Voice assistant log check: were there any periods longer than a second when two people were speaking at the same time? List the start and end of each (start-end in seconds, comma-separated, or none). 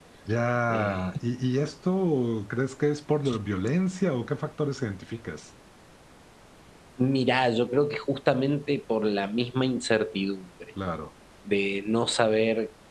none